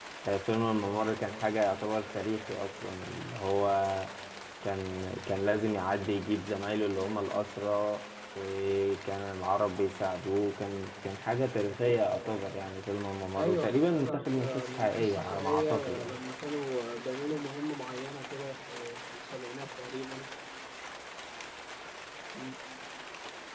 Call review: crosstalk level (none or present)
present